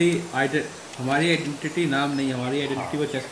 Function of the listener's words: taking over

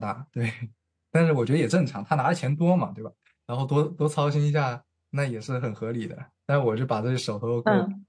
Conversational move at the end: taking over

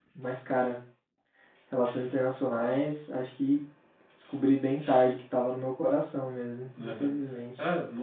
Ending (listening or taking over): taking over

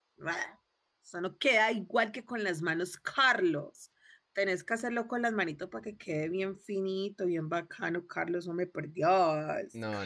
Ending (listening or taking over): taking over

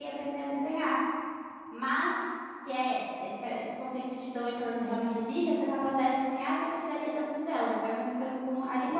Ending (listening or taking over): taking over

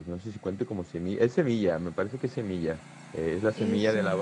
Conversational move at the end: listening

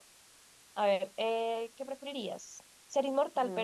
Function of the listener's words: listening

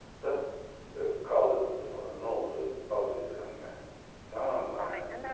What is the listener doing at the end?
listening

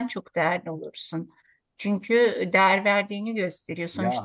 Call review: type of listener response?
taking over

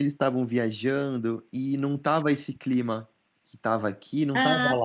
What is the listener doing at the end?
taking over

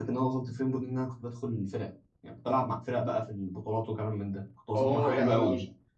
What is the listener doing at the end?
taking over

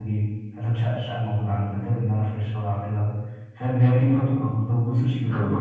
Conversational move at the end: listening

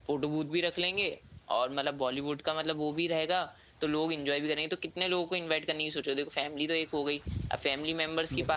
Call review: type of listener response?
listening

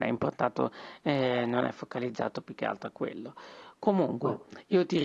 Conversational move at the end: listening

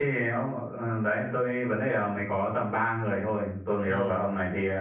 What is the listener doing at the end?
listening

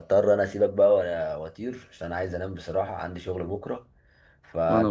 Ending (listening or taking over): listening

